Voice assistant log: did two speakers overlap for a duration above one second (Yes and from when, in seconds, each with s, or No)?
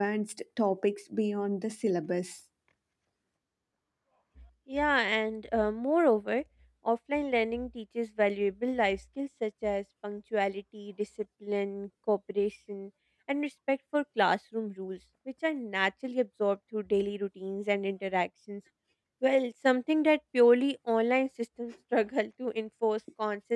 No